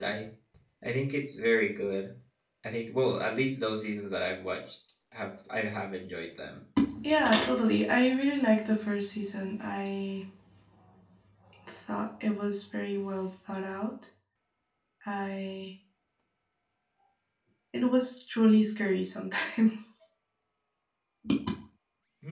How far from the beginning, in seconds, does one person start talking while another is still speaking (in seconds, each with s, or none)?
none